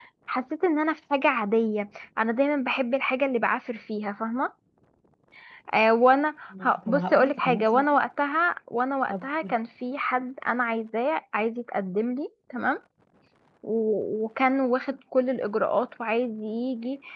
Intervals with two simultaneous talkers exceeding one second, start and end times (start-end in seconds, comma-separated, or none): 6.6-7.8